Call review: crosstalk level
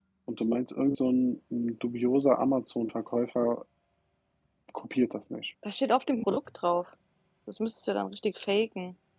none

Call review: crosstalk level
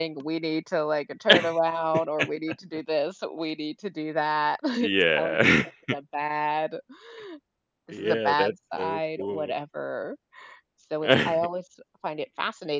present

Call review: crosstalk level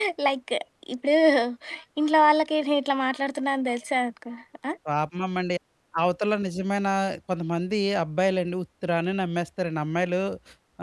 none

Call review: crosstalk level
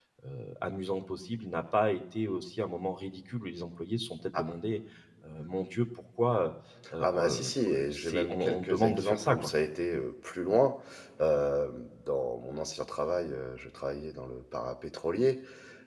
present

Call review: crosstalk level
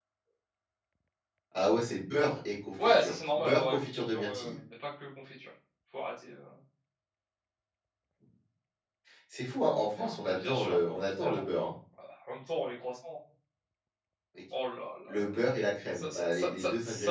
present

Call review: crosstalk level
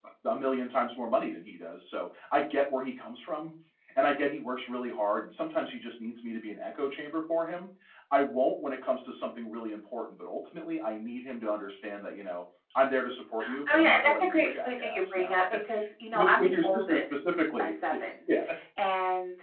present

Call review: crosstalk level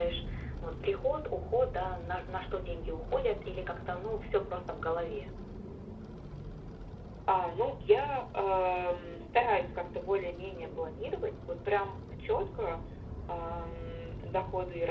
none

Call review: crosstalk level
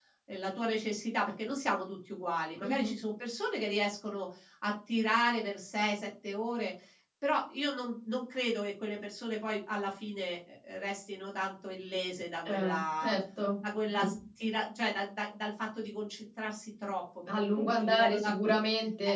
present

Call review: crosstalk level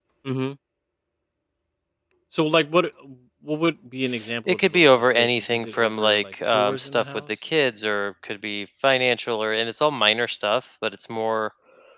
present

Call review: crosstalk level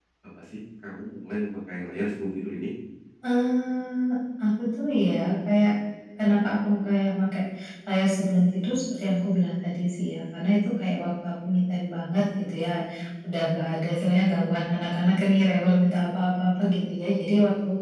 none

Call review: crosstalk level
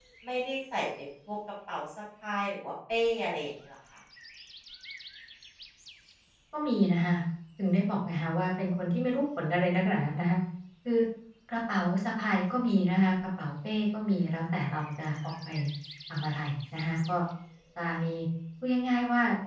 none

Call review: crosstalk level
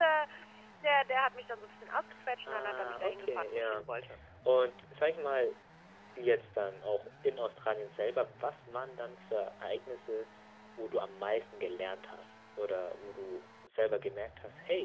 present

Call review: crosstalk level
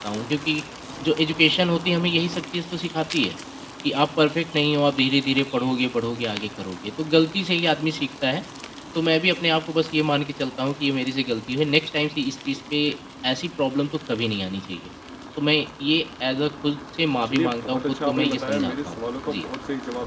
present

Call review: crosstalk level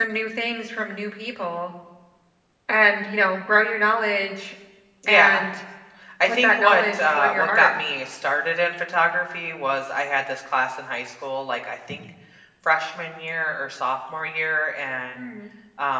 present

